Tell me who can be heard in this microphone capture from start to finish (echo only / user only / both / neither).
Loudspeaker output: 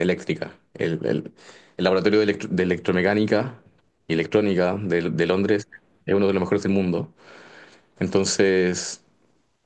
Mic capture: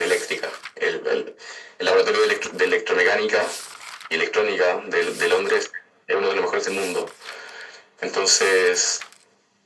echo only